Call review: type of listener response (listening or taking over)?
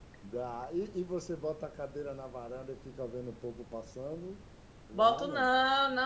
taking over